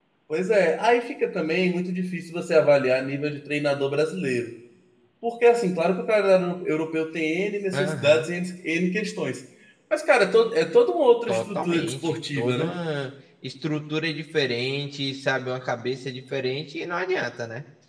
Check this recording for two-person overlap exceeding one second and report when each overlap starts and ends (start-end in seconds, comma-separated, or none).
11.3-12.8